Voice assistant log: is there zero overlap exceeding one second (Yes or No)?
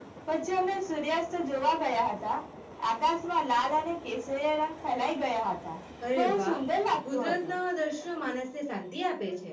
Yes